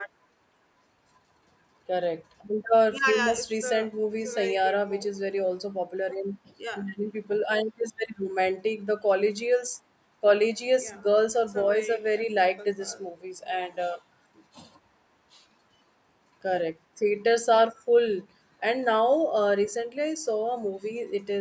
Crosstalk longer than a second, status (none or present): present